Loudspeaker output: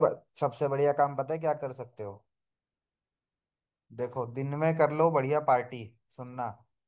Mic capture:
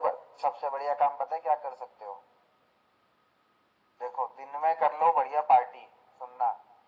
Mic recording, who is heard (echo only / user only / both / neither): echo only